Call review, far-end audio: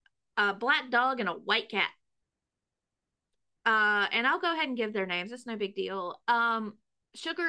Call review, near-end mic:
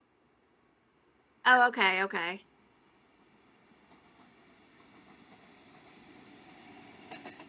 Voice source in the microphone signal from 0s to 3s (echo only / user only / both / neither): user only